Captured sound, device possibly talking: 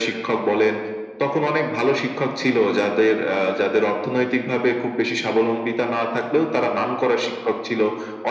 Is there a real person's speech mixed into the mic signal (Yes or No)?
No